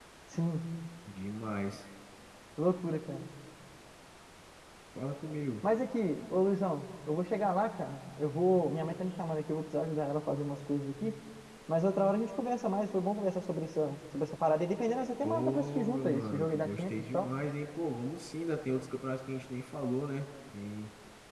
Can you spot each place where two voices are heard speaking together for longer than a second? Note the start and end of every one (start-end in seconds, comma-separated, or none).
15.2-17.3